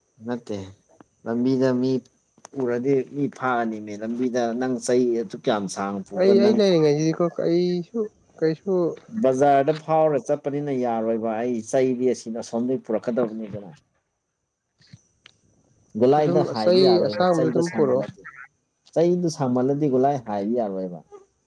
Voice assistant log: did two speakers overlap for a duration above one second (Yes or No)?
Yes